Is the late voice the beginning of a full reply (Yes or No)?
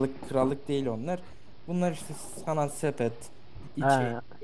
No